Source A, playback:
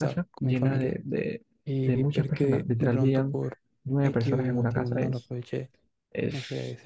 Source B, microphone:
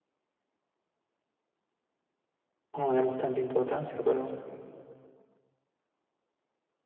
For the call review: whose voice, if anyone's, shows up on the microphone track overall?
user only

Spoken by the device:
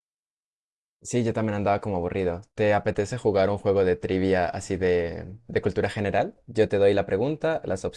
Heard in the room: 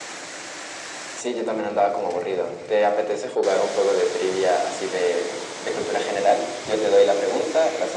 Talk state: echo only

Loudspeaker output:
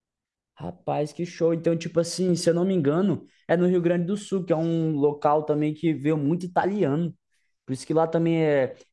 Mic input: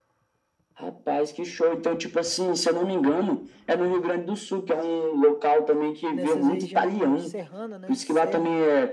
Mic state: both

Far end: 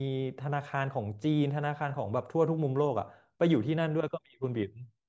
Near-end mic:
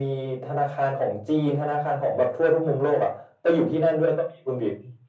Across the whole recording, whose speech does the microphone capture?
echo only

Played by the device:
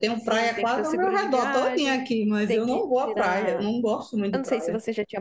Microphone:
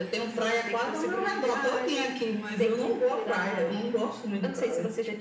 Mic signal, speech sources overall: echo only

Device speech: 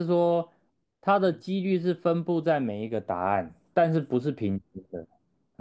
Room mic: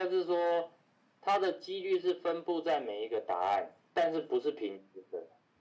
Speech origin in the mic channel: echo only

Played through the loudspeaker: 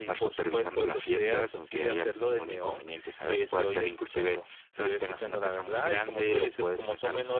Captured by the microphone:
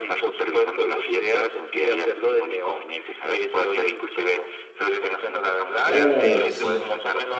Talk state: both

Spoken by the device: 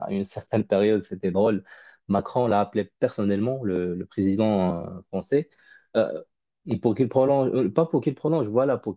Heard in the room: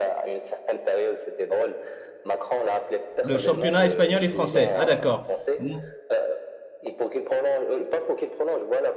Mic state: both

